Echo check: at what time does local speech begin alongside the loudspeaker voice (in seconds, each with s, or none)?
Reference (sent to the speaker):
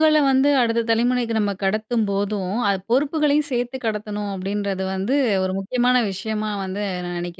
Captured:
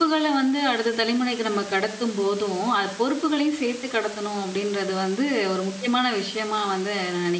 none